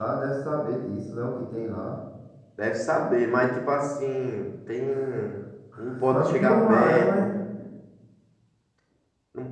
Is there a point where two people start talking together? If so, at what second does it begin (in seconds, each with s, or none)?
6.1 s